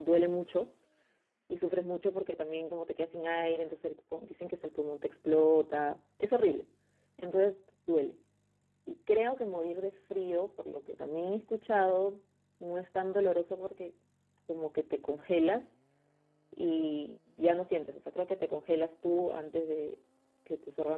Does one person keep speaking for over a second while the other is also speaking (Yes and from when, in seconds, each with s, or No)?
No